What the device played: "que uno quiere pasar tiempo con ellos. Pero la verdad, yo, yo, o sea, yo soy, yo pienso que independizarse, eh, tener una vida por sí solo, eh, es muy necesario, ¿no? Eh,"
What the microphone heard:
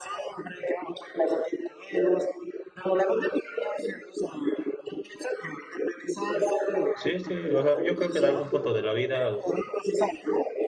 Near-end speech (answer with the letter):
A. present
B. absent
A